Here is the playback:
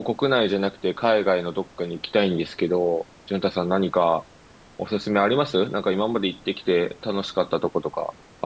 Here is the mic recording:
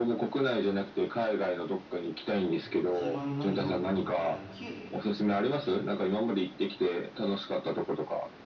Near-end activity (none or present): present